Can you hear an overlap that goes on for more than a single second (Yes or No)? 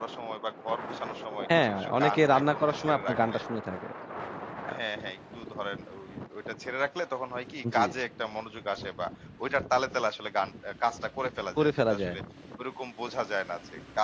Yes